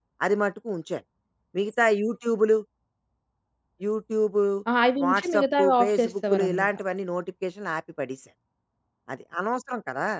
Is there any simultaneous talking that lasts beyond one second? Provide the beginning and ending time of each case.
5.0-6.7

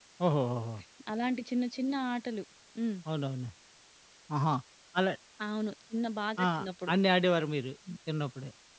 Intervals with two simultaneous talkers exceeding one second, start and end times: none

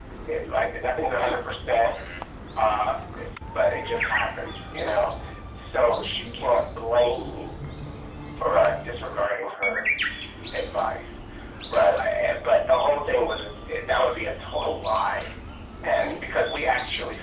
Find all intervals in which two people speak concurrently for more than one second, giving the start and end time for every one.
none

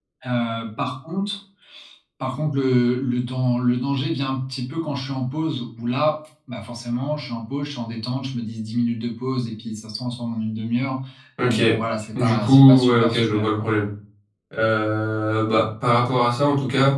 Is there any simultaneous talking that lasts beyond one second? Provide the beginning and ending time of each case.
12.2-13.6

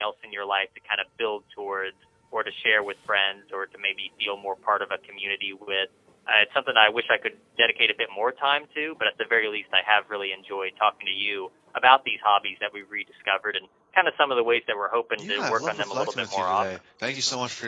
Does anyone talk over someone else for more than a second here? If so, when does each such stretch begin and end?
15.2-16.7

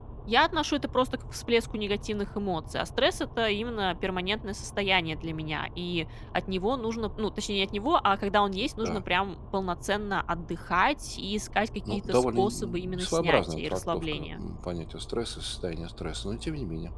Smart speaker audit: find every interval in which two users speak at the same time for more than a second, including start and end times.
11.9-14.4

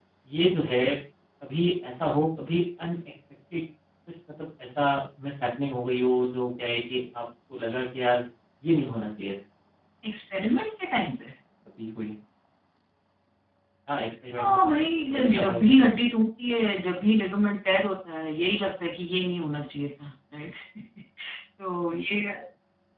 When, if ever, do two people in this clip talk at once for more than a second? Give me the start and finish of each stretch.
14.4-15.7

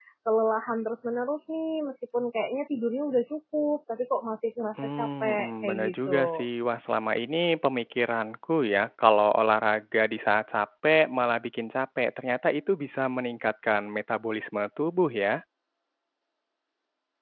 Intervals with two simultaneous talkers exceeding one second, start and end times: 5.0-6.5

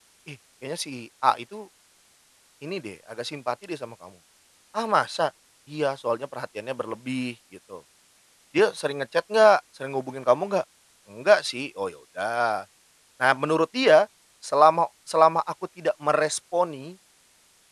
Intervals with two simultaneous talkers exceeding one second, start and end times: none

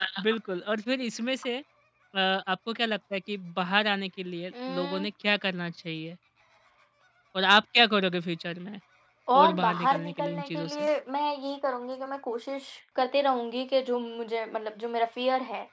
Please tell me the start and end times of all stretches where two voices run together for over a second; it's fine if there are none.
9.3-10.9

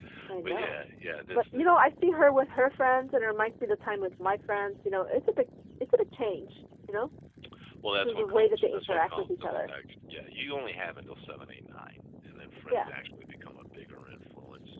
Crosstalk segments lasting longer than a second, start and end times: 8.0-9.7

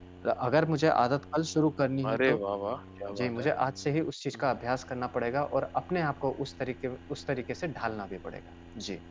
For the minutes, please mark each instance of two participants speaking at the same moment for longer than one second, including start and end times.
none

